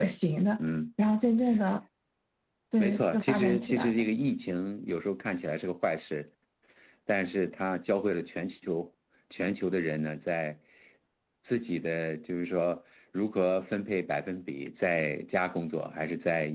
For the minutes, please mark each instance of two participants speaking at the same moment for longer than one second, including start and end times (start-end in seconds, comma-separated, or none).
2.8-4.1